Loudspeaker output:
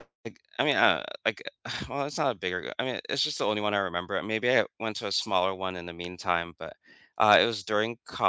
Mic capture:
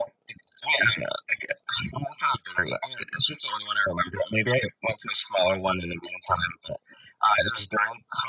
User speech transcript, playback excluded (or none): none